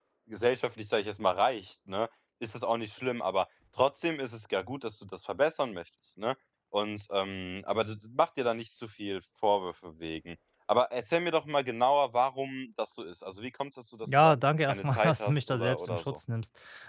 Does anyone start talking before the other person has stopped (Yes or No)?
Yes